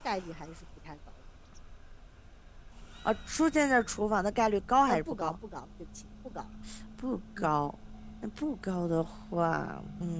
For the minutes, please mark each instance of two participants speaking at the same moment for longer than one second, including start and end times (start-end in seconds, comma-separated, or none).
none